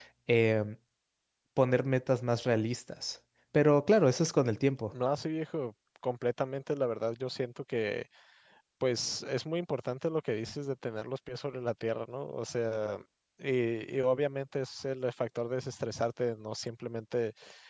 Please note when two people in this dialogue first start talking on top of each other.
none

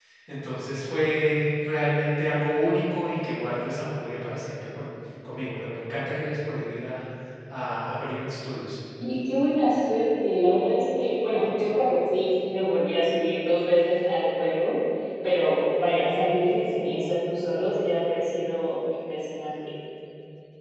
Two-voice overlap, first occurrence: none

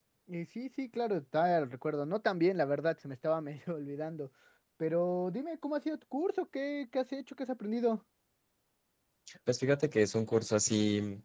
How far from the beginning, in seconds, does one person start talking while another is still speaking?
none

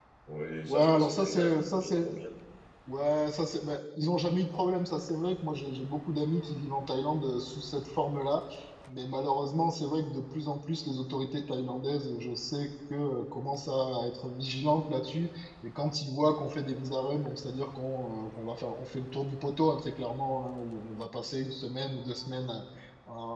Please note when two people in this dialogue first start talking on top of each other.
0.7 s

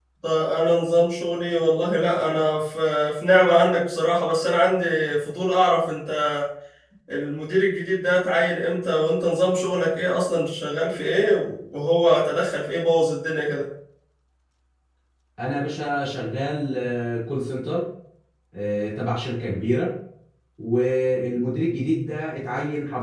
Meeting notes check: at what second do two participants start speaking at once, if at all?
none

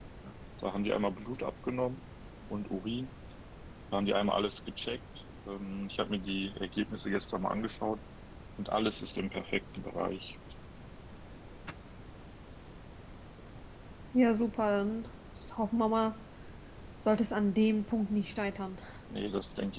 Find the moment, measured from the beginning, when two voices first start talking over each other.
none

